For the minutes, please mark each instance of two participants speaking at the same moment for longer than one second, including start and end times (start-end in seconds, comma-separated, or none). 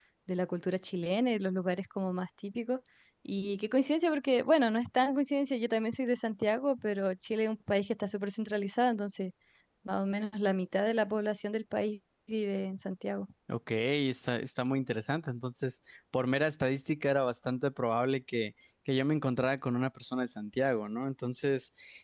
none